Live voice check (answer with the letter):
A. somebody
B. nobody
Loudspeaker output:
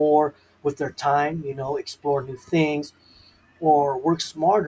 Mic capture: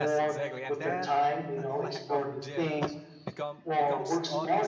A